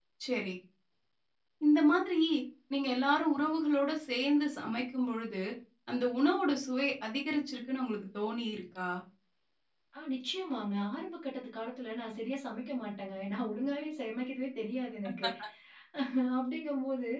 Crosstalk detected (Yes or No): No